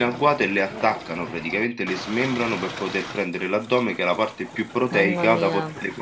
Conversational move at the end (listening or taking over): listening